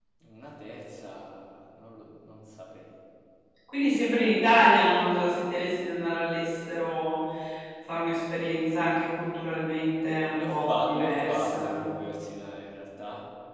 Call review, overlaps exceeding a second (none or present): present